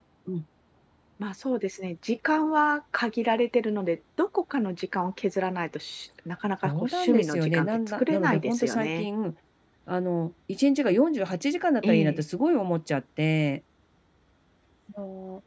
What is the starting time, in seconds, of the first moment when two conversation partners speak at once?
7 s

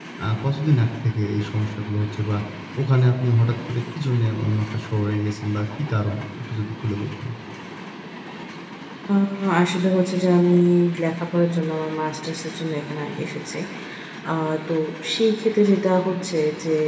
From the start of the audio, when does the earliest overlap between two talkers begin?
none

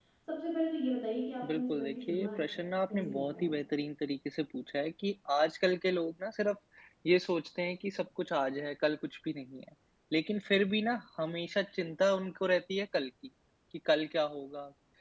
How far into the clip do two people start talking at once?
1 s

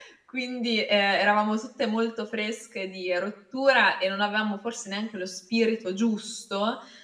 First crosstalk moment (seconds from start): none

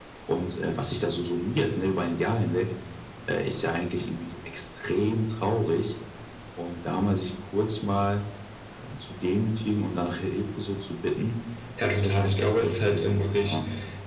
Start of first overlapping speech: 12 s

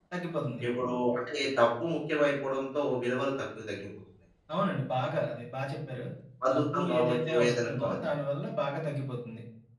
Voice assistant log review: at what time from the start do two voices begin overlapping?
7 s

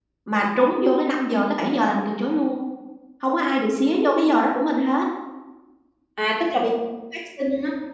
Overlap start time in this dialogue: none

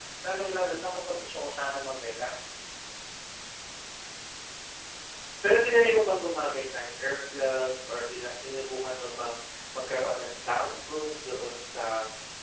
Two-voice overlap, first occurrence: none

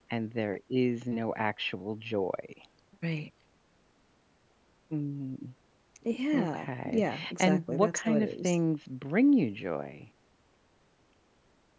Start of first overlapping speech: 6 s

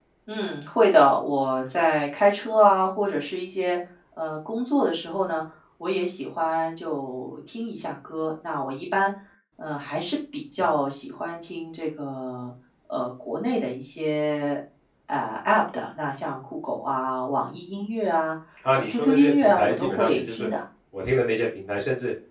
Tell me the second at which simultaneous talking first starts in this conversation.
19 s

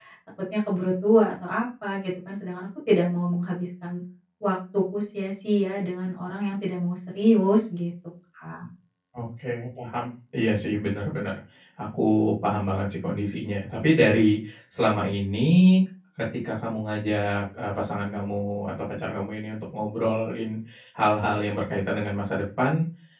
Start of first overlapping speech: none

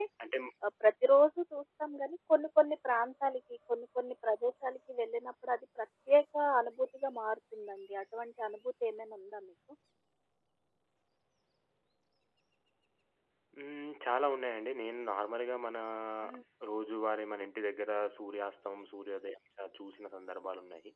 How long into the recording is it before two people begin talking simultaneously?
none

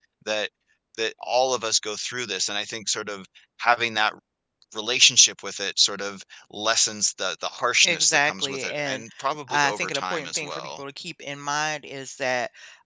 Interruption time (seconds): 8 s

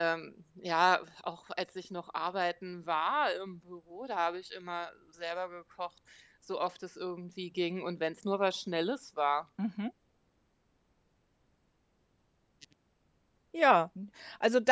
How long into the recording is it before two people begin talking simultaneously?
none

